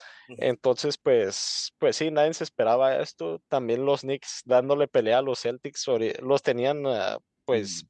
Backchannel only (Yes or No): Yes